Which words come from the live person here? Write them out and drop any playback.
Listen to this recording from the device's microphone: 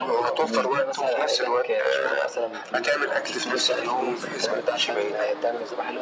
تمام.

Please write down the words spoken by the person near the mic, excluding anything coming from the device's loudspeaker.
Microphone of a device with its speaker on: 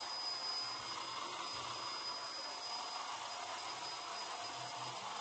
none

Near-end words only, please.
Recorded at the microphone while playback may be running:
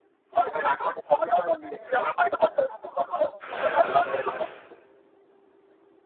కదా! అలా ఉంటదనమాట.

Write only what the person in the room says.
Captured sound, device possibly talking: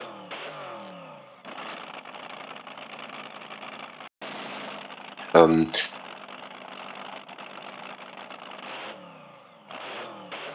Ähm,

